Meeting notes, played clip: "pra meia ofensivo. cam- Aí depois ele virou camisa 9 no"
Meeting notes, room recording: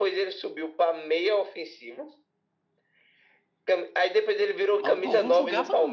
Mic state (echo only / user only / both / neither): both